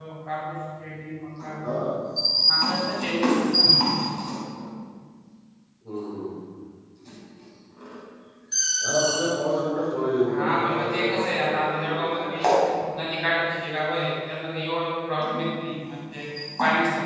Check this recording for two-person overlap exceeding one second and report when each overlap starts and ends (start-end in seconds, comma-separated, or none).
10.3-12.4